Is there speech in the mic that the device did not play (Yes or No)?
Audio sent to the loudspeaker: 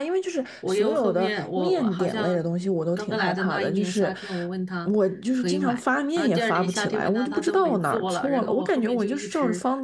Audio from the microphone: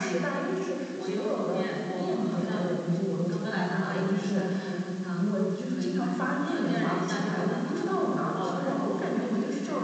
No